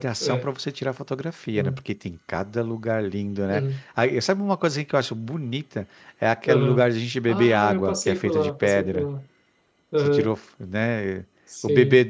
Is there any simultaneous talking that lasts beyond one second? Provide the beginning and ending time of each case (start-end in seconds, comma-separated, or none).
7.3-9.1